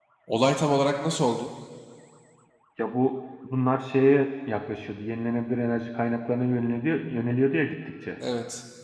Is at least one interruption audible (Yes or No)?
No